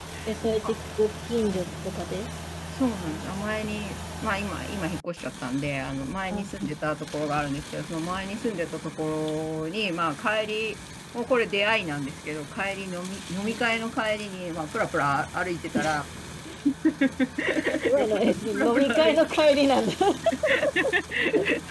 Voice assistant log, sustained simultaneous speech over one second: present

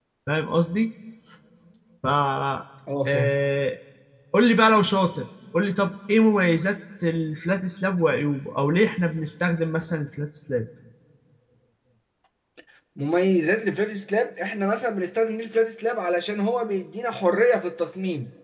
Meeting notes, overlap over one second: none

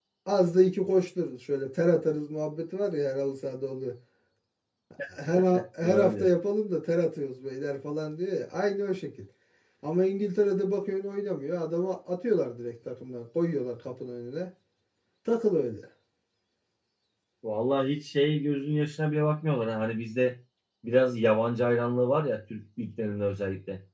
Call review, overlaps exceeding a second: none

